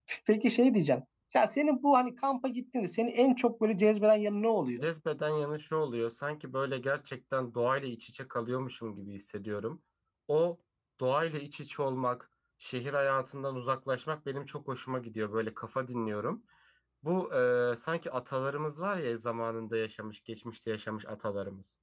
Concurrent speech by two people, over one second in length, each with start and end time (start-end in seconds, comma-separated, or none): none